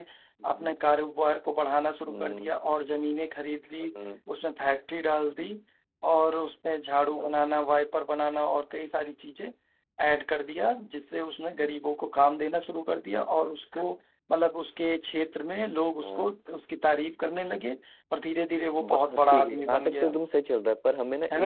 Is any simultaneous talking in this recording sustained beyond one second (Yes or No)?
Yes